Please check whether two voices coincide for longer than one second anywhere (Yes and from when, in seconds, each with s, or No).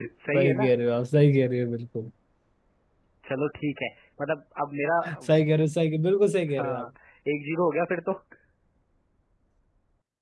No